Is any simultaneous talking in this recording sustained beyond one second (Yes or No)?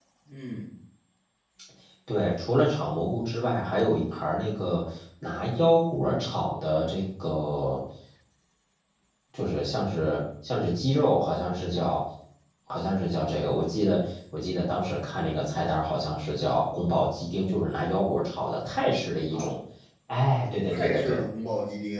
No